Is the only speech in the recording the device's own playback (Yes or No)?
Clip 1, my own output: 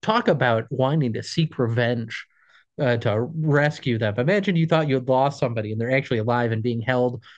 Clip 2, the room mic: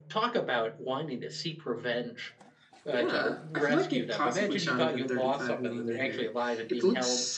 No